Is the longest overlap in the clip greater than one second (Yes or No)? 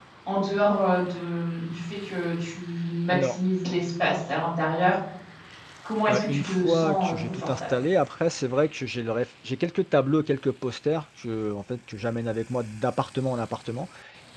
Yes